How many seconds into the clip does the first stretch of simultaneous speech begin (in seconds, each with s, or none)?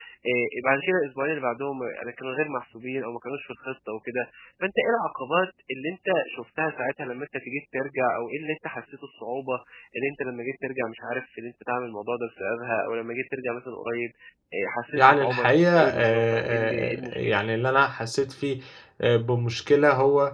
14.9 s